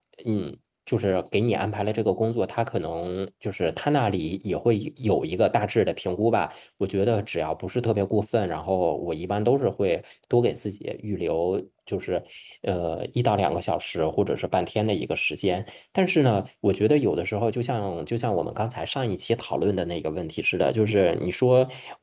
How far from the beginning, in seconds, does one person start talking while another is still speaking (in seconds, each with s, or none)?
none